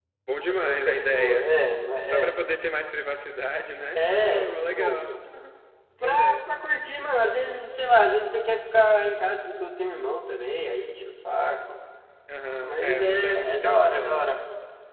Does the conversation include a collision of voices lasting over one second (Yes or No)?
Yes